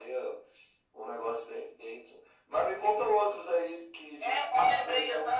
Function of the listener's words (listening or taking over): taking over